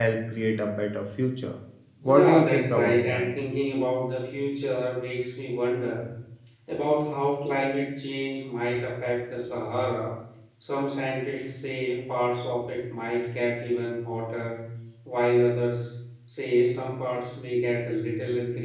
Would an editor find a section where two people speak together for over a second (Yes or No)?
Yes